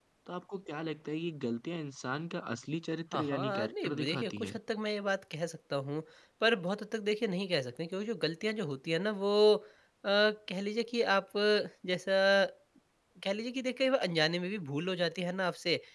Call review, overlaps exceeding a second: present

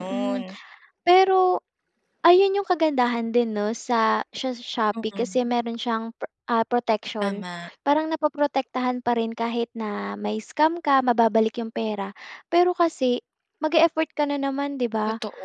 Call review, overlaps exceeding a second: none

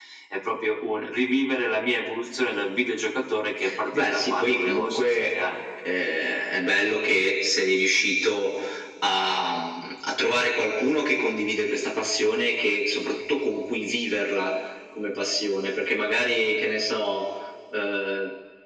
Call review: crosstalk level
present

